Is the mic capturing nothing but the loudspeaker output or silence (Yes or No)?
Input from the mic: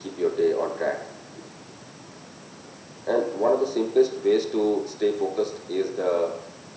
Yes